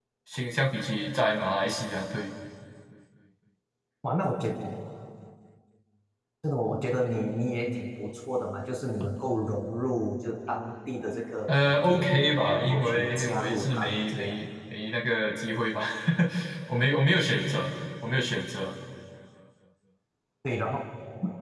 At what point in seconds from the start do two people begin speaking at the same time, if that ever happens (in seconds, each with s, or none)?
11.5 s